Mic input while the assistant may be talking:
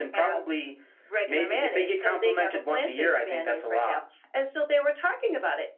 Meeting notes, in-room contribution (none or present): none